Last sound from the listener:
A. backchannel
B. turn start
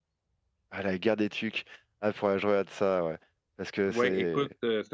B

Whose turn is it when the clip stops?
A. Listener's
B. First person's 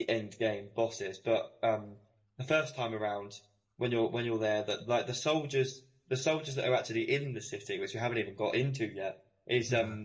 B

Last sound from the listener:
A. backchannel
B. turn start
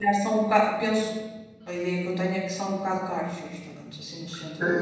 B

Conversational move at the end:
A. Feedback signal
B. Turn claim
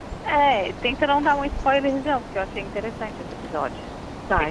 B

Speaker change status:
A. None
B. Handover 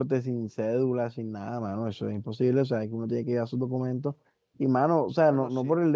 A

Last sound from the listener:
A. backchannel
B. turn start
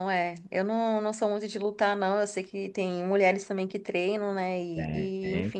A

